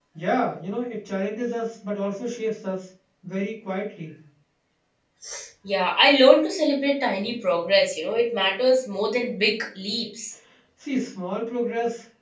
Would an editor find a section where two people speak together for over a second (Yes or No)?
No